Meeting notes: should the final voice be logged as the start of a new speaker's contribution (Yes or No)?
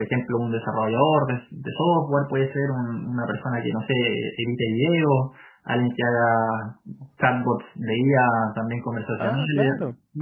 No